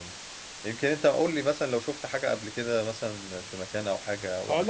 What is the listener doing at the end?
taking over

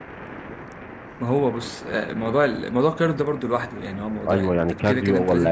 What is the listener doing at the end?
taking over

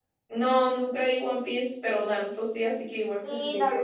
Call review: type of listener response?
taking over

